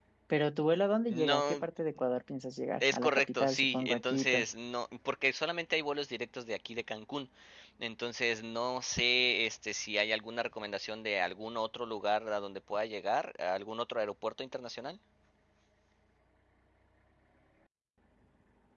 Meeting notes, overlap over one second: present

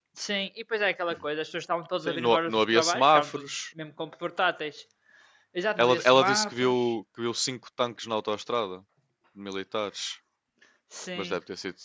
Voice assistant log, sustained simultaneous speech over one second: present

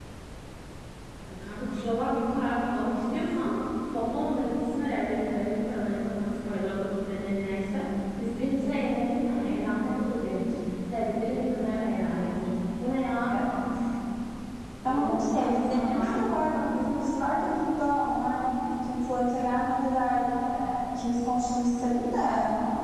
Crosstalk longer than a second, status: present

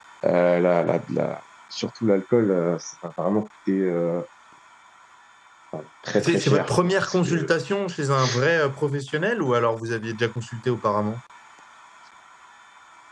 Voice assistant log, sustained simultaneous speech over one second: present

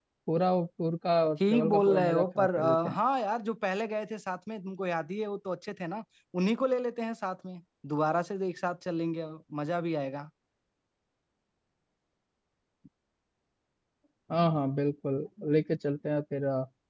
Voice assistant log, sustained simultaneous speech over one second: present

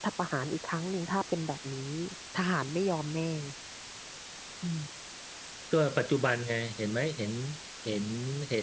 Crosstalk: none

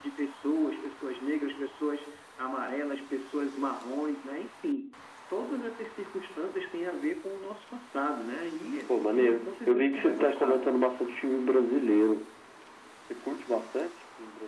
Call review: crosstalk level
present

